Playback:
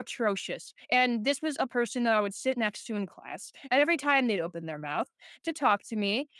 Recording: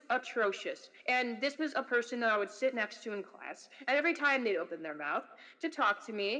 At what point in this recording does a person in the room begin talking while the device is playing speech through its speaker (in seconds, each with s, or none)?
none